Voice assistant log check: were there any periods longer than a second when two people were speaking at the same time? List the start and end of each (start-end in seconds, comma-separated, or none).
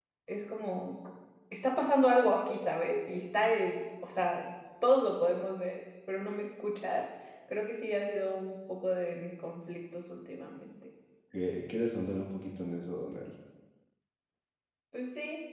none